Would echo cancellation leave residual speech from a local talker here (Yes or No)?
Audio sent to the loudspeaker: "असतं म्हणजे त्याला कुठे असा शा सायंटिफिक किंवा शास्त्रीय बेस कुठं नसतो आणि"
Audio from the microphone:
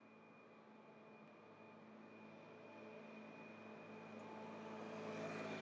No